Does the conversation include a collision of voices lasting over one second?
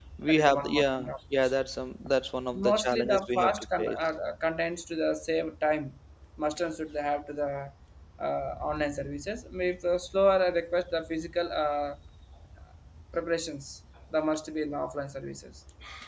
Yes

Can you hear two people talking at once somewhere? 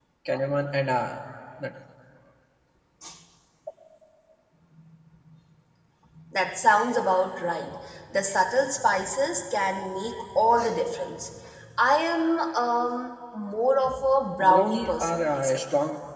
Yes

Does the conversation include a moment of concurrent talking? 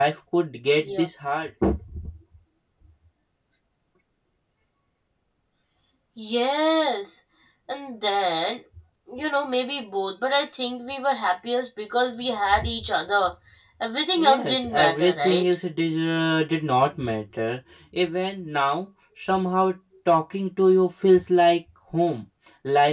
Yes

